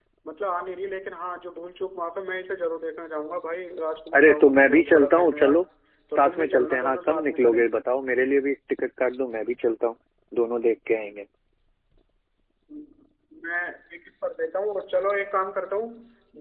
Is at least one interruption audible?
Yes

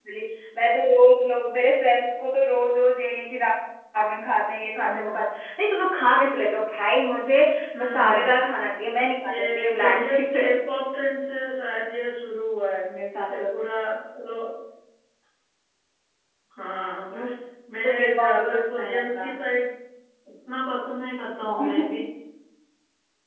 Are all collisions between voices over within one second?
No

